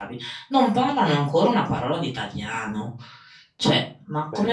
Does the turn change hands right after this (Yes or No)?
No